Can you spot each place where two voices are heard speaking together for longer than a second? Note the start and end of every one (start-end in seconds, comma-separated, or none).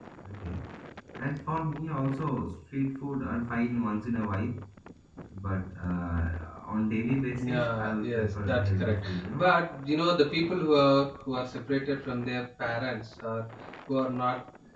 7.4-9.5